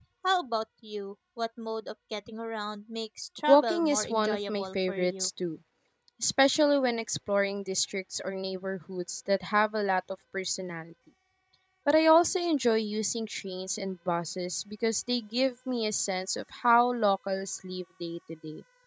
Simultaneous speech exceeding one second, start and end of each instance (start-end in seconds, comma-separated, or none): 3.5-5.3